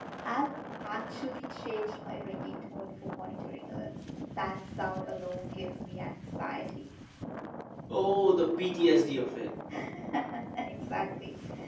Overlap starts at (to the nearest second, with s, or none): none